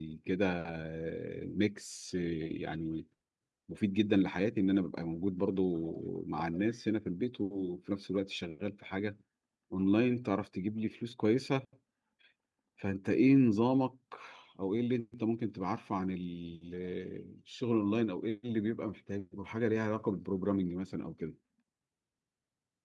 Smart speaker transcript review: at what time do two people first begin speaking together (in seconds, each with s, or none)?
none